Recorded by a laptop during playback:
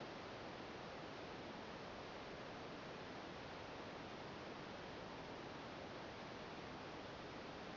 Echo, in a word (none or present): none